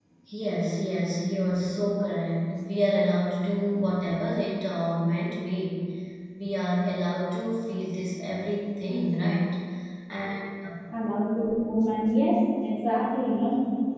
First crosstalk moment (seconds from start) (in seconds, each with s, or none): none